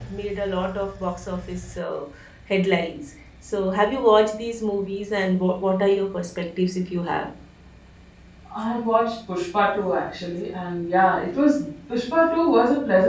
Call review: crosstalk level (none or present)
none